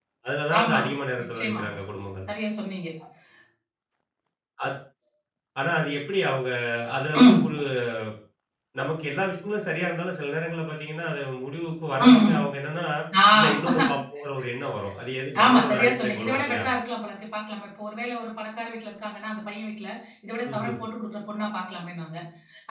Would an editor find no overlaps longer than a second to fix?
No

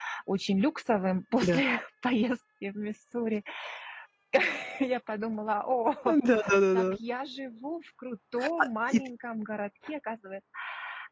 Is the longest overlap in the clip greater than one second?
No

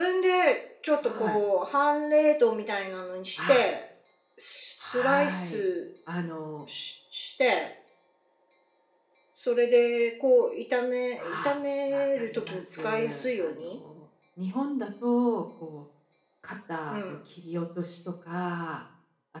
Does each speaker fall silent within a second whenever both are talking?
No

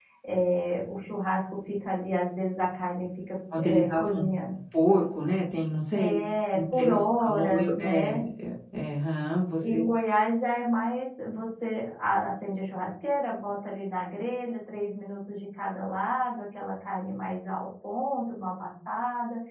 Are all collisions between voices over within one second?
No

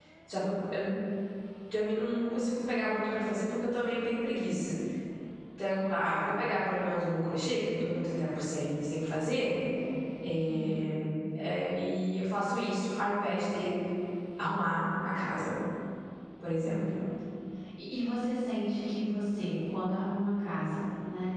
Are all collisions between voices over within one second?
Yes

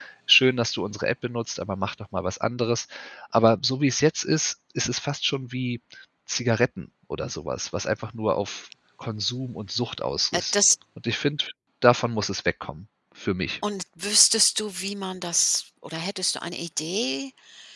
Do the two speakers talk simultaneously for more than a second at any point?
No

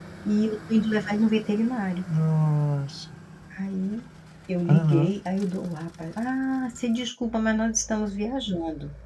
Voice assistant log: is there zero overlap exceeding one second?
Yes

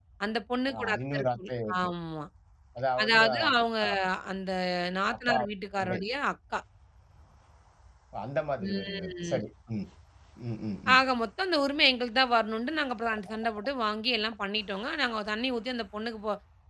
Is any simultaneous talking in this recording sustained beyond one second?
Yes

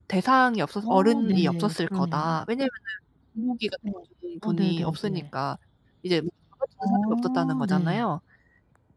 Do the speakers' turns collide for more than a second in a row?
Yes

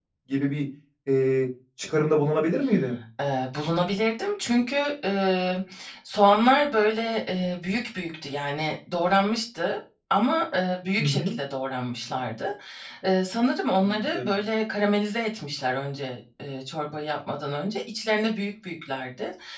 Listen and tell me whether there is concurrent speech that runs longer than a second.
No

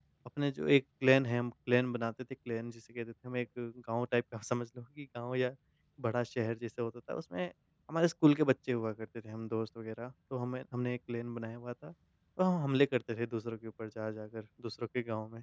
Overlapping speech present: No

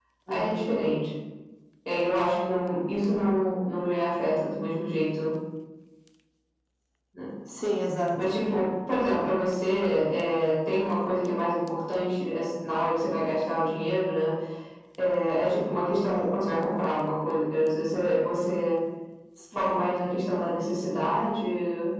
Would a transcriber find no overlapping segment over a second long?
Yes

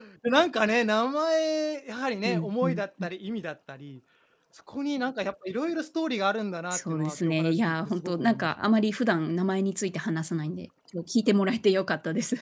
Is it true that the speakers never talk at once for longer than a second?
No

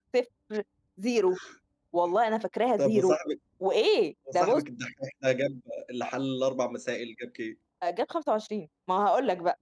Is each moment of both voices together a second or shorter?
Yes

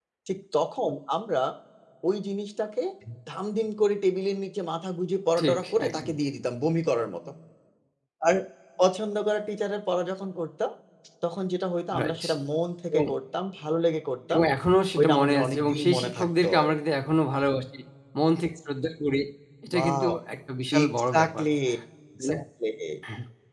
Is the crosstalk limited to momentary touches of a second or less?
No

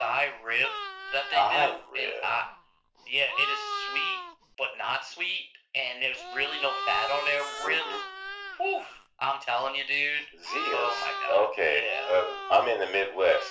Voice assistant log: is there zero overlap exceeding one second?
No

